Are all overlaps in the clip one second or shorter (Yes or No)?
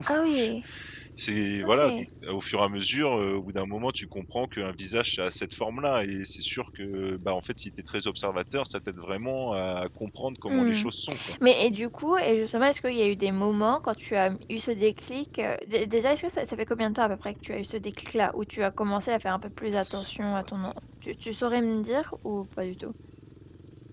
Yes